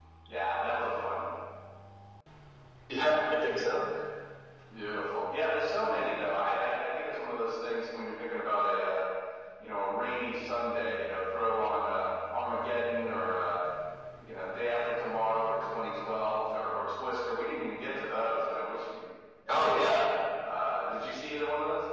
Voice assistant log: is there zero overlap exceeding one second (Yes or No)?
Yes